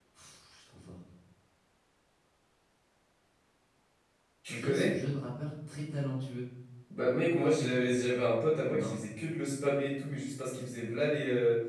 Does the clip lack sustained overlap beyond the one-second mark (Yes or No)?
Yes